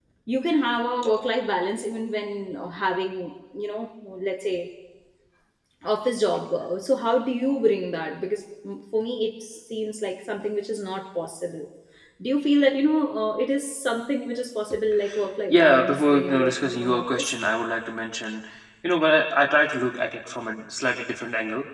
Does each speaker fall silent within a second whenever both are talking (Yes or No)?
No